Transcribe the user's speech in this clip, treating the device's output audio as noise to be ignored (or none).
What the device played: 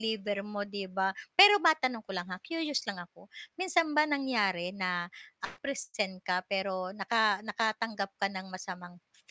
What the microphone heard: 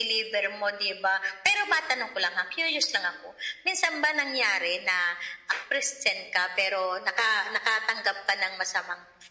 none